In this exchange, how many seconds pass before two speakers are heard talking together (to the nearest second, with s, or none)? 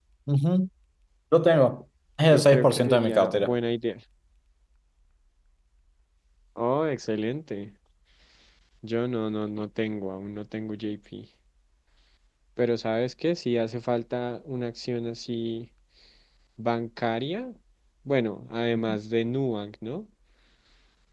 2 s